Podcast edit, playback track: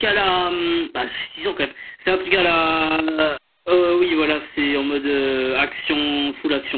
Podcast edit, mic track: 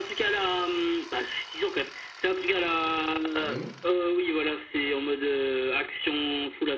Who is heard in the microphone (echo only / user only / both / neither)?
both